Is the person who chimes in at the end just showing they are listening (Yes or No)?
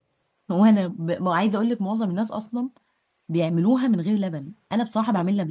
No